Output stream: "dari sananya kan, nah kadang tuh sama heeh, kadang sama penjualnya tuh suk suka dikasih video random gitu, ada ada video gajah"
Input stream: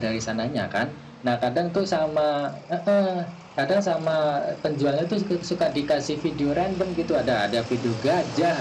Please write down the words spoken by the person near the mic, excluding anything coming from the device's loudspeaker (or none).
none